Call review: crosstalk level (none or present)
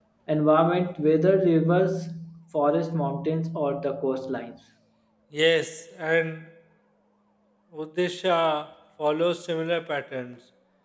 none